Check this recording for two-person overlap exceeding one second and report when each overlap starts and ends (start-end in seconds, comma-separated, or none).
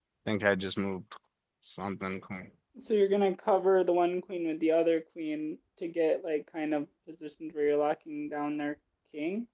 none